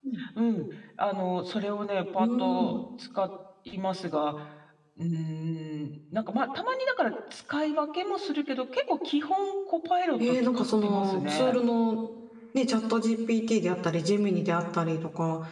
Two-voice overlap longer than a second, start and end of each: 10.3-11.5

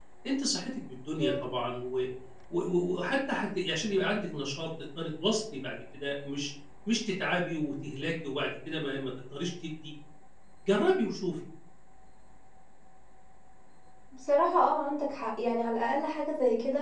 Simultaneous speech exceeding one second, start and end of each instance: none

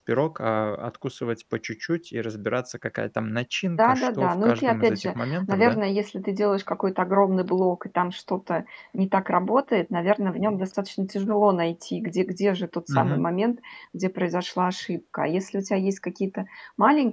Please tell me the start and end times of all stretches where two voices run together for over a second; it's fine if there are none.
3.8-5.8

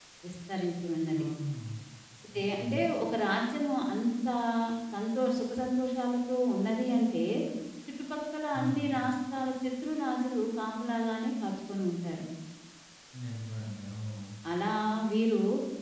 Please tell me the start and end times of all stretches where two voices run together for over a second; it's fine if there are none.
none

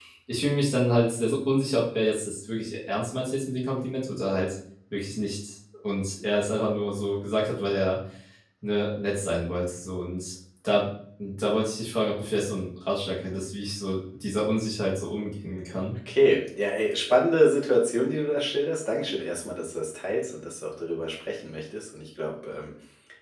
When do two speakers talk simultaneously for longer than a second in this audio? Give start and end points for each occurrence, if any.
none

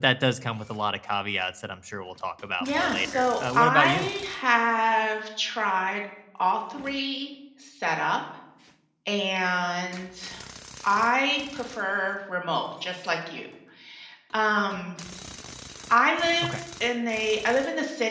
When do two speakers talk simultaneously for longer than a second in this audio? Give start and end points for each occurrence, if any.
2.6-4.1

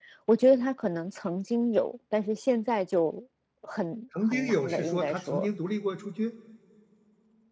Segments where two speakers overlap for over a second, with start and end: 4.2-5.5

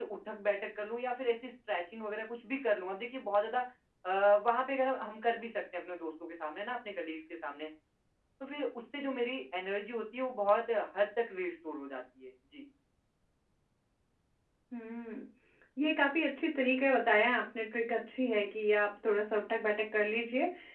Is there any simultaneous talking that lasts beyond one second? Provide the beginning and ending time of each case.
none

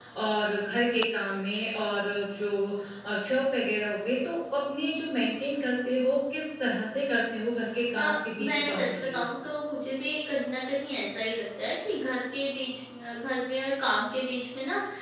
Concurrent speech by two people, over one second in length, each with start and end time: 8.0-9.2

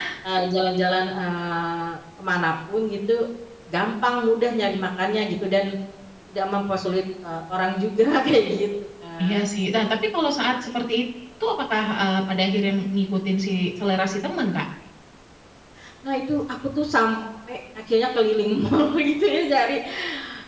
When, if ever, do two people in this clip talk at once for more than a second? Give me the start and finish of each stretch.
none

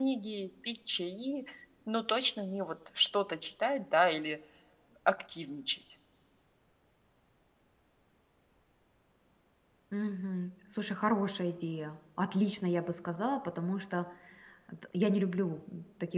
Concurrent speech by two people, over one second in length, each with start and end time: none

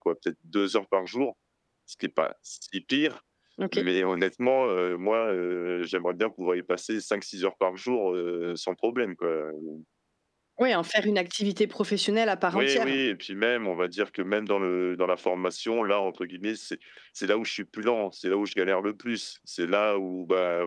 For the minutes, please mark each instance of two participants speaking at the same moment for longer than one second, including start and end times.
none

